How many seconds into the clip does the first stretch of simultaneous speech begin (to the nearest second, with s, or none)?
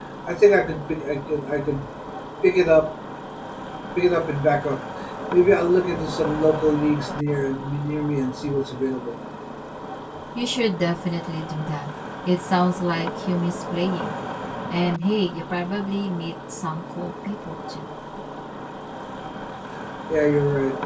none